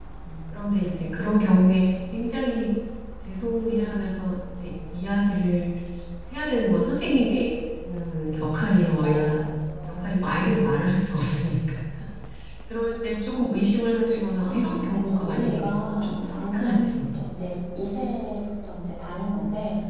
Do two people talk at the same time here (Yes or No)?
Yes